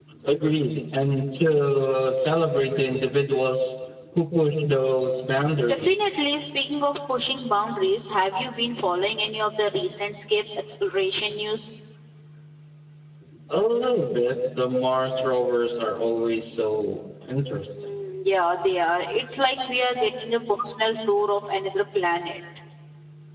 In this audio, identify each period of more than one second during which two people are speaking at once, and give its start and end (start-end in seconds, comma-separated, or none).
none